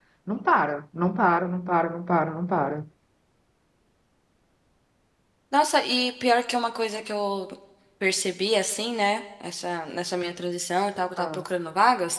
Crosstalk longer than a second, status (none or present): none